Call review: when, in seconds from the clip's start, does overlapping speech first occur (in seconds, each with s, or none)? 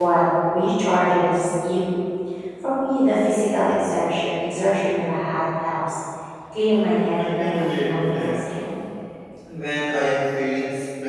6.9 s